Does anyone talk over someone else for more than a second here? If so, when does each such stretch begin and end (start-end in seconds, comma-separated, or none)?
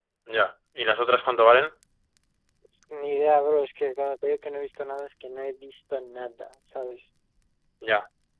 none